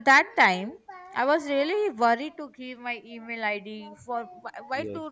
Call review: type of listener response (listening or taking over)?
listening